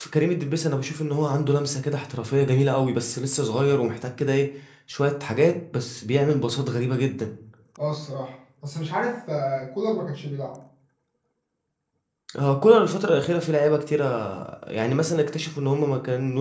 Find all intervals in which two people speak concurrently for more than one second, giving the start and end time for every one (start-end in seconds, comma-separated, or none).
none